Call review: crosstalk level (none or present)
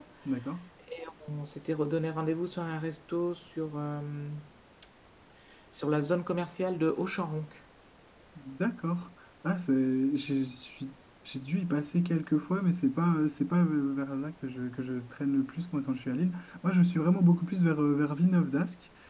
none